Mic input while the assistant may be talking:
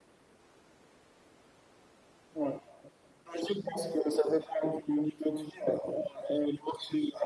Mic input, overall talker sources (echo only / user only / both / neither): echo only